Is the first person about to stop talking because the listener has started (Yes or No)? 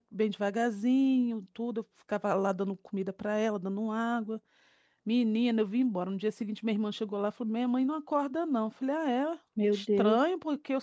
No